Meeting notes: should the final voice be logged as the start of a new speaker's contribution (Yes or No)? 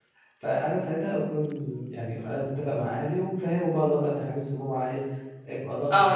Yes